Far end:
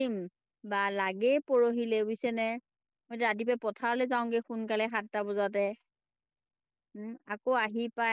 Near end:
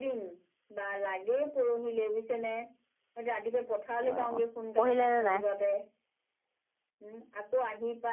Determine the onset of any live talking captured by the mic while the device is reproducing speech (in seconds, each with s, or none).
4.1 s